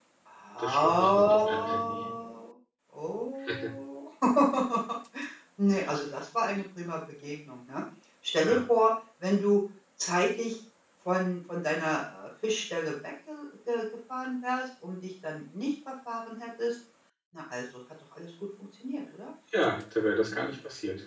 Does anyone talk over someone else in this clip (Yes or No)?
Yes